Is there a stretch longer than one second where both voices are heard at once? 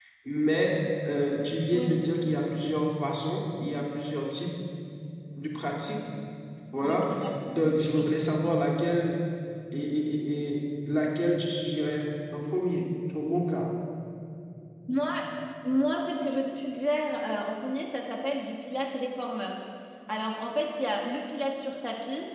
No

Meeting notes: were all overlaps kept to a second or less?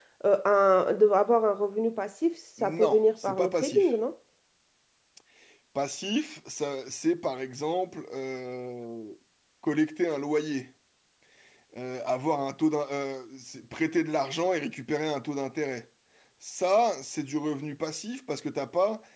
No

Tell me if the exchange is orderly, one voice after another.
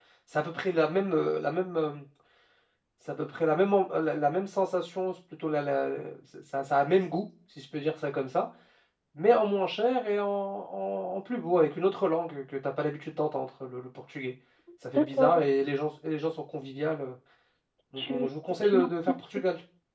No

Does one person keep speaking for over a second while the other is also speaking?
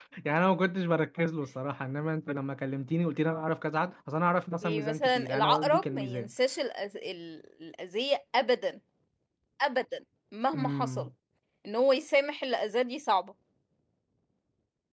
Yes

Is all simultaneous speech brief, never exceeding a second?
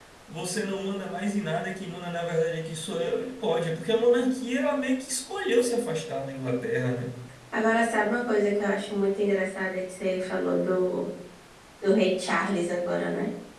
Yes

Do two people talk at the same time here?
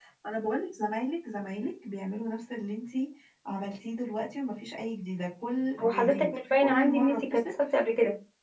Yes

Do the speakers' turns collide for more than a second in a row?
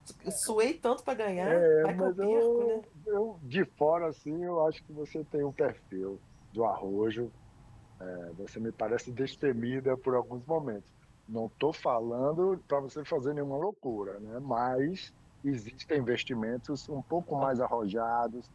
Yes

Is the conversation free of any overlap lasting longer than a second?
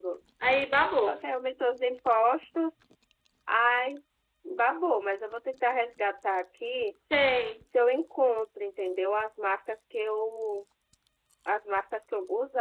Yes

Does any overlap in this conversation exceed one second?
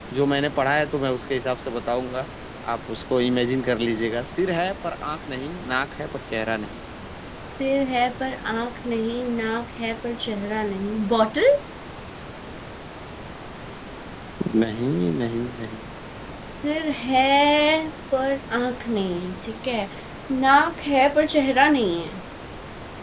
No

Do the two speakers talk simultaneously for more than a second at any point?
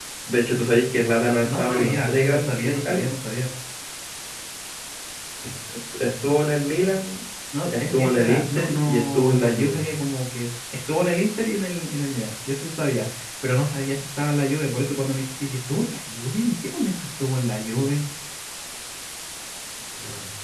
Yes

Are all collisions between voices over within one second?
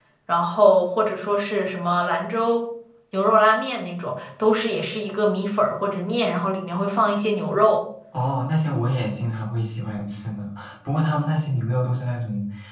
Yes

